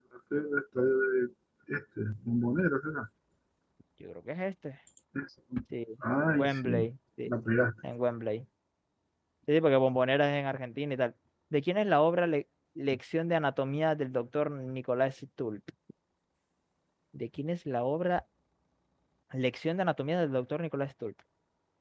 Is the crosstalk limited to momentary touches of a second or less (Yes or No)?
Yes